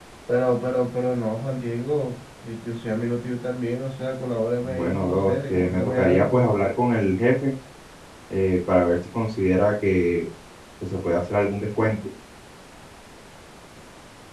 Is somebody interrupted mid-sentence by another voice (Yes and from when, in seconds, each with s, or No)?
Yes, from 4.6 s